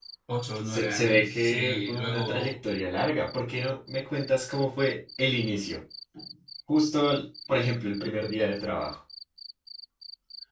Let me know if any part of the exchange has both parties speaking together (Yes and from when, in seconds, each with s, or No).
Yes, from 0.7 s